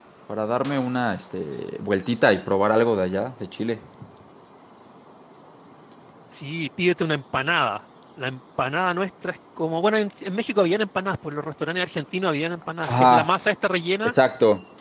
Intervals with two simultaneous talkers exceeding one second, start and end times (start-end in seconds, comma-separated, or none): none